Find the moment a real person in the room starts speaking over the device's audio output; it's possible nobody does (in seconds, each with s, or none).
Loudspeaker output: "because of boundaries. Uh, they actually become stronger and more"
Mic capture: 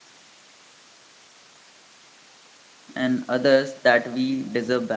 2.9 s